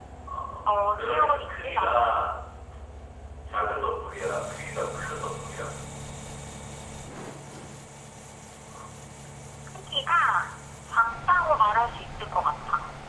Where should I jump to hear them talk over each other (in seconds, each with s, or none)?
0.7 s